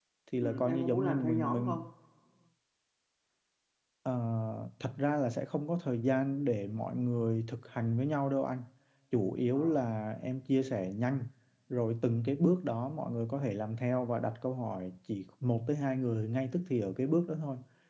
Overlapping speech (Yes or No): Yes